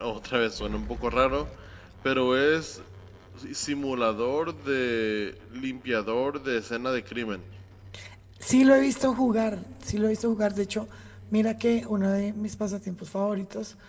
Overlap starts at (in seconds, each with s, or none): none